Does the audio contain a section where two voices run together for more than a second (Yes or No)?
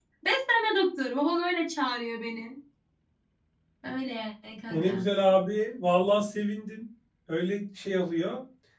No